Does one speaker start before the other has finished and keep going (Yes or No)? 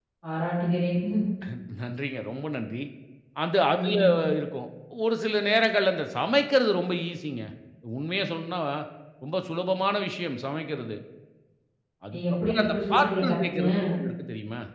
Yes